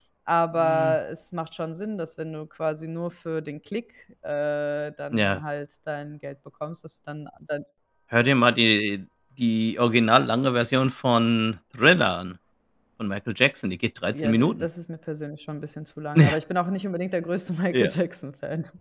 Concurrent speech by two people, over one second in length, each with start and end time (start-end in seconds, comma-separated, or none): none